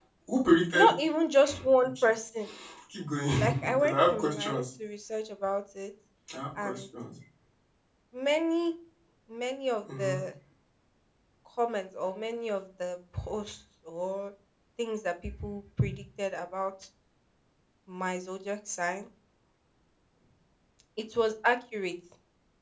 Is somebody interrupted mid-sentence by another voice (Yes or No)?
Yes